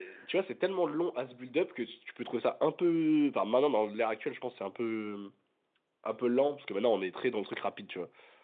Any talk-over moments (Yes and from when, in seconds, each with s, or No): No